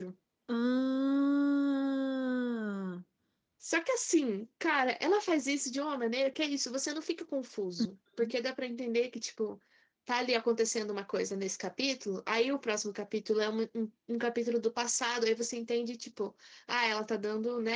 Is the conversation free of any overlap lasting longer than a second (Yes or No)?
Yes